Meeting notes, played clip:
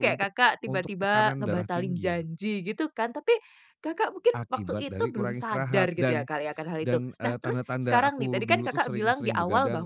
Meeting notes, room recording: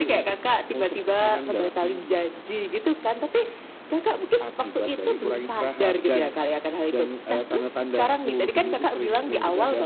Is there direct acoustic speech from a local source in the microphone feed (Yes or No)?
No